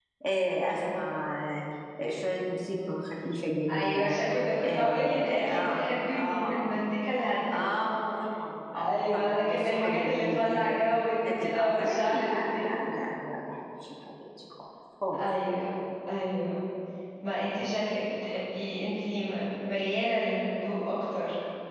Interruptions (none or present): present